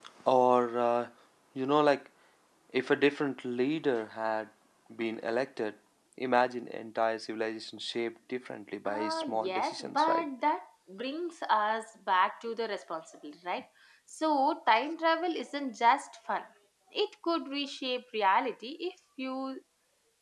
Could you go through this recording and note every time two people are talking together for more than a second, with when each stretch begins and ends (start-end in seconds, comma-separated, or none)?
8.8-10.3